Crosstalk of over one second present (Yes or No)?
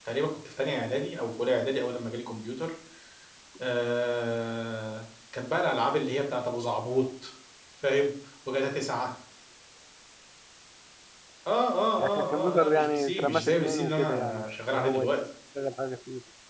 Yes